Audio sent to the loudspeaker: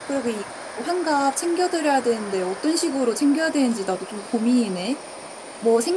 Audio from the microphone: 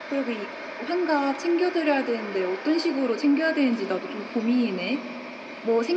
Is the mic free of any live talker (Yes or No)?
Yes